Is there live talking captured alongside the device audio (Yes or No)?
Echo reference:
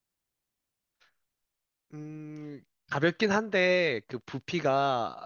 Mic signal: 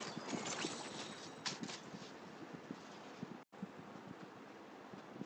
No